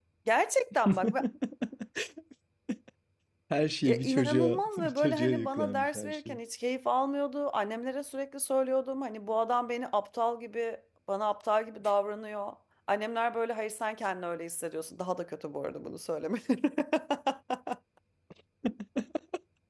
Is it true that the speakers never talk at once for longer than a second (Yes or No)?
No